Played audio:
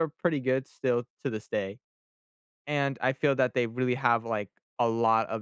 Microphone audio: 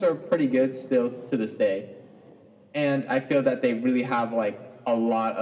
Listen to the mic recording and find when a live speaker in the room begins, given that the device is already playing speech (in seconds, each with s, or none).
none